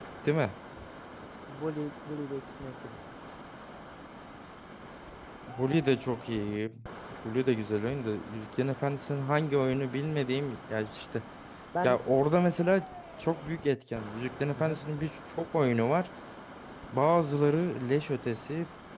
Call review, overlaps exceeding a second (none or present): none